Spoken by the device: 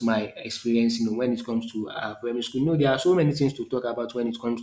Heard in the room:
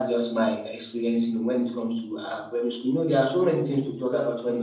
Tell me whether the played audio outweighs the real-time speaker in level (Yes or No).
Yes